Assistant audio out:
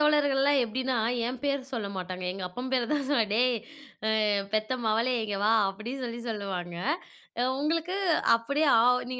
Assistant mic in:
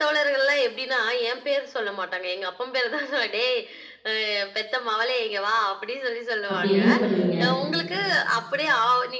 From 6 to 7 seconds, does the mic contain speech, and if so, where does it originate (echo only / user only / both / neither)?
both